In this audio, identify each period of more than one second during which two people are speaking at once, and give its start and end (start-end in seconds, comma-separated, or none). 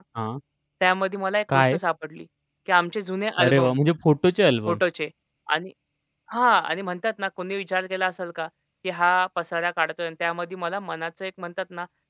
none